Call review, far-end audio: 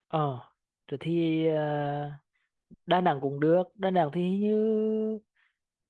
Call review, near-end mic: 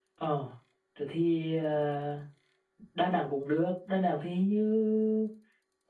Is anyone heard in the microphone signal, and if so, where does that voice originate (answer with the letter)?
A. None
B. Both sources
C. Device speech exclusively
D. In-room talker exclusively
C